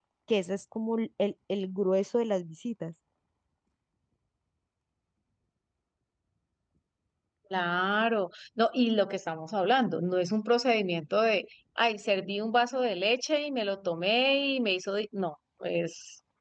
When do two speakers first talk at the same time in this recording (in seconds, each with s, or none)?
none